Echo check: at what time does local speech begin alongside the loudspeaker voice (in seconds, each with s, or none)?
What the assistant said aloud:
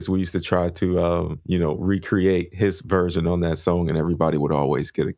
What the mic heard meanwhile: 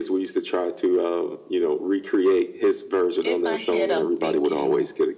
3.2 s